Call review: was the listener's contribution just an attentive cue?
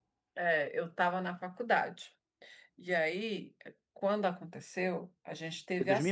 No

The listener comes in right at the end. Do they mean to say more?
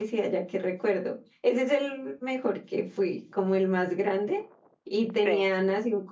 No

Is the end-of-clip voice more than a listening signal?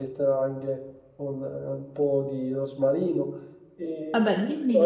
No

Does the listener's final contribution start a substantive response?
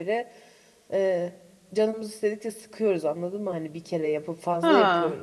Yes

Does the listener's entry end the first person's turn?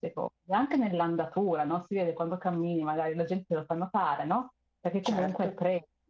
No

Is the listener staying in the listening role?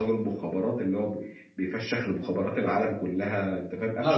No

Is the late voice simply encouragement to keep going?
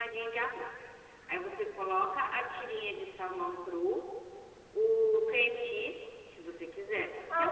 No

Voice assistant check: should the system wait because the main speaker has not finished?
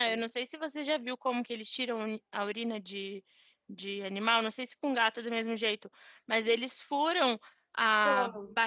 Yes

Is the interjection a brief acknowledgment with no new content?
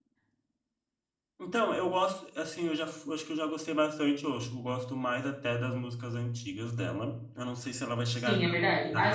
No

